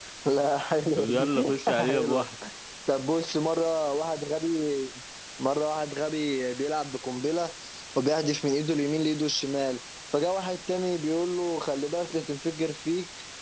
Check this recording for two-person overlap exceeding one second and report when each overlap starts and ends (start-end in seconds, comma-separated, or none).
0.9-2.3